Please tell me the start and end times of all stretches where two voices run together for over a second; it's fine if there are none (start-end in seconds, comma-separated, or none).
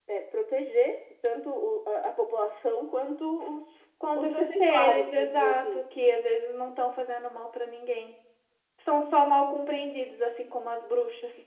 4.2-5.8